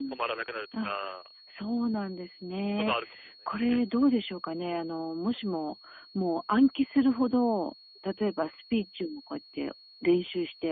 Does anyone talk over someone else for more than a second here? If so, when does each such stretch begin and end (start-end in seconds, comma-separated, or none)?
none